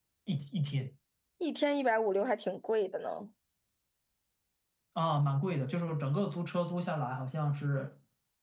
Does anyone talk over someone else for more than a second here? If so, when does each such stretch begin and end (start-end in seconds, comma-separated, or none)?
none